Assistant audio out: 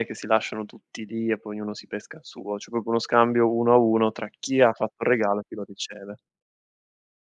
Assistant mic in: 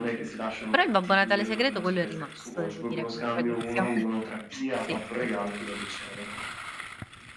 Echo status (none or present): present